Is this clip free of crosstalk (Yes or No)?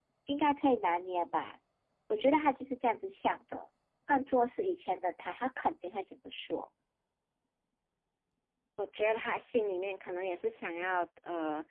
Yes